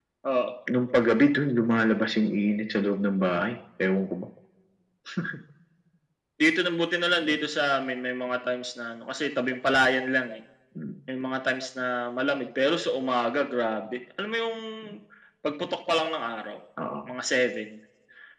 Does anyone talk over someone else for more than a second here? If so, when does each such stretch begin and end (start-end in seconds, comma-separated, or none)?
none